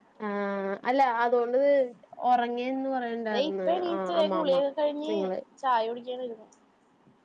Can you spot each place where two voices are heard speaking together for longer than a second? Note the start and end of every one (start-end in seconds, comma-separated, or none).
3.3-4.6